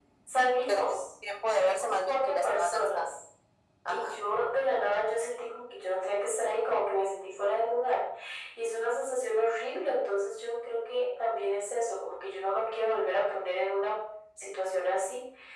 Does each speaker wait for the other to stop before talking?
No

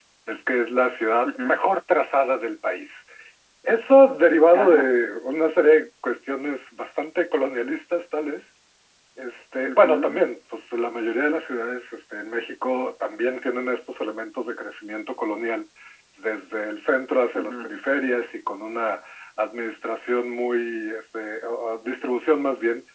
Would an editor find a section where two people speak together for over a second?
No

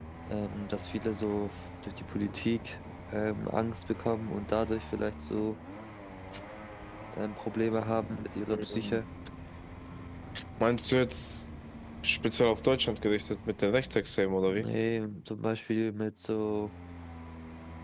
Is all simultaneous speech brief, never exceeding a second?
Yes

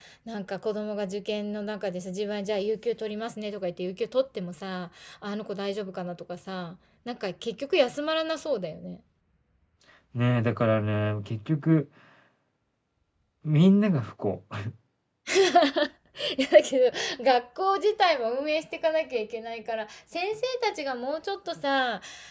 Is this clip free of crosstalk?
Yes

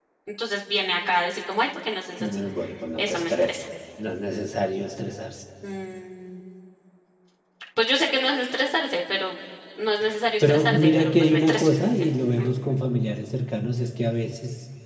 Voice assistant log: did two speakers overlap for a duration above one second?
Yes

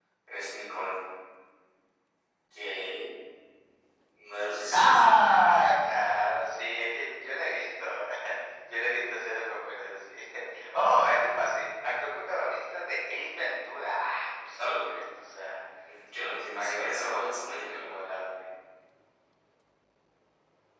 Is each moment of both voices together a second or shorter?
No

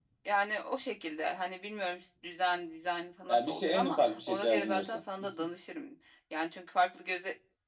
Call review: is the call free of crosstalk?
No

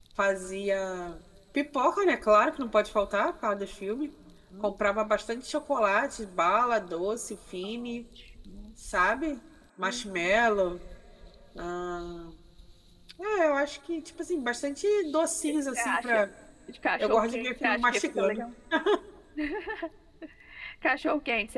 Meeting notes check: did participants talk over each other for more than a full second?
Yes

